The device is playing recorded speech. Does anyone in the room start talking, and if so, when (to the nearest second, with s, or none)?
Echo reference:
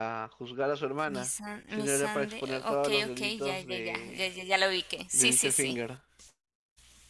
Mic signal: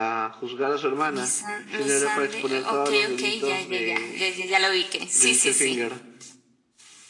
none